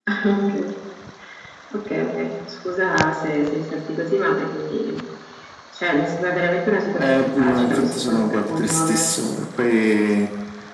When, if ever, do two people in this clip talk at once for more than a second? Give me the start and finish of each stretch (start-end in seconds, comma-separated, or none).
6.9-9.1